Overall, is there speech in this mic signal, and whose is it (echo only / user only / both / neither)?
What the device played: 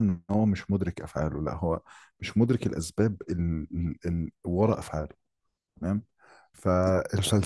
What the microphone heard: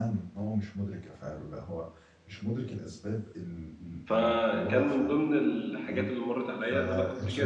both